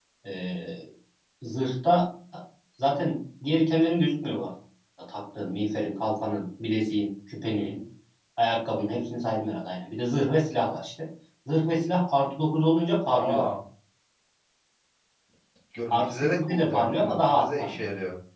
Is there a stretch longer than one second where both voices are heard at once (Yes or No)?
Yes